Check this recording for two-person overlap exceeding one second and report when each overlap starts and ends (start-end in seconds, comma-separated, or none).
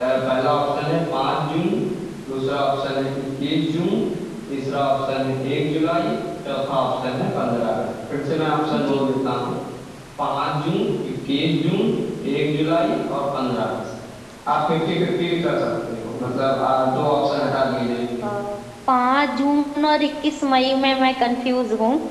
none